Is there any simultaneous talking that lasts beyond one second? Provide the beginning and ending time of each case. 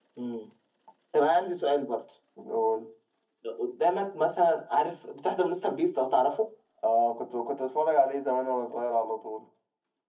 none

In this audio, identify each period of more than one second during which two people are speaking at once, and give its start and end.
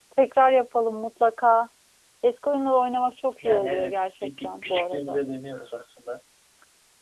3.4-5.2

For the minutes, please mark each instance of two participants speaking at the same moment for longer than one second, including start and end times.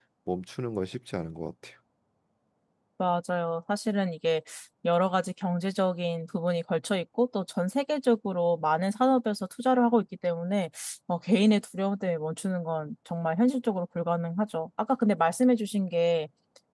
none

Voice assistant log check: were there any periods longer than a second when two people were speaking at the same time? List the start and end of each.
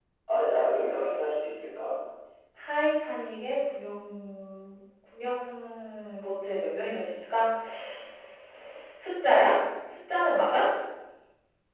none

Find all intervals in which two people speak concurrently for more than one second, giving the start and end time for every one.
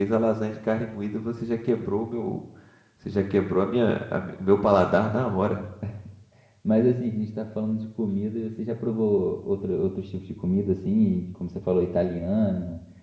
none

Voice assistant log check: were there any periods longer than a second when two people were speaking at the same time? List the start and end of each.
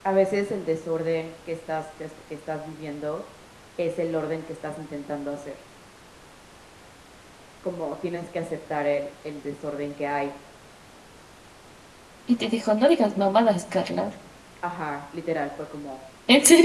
none

